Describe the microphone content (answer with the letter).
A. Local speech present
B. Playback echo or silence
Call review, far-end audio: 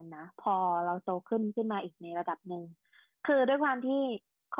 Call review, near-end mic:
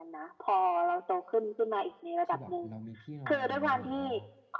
A